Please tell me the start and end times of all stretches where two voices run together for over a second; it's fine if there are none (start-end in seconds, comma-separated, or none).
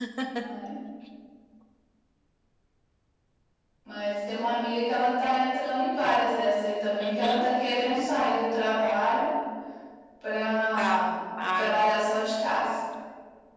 none